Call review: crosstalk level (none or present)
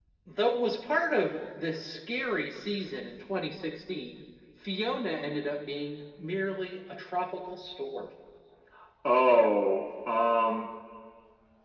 none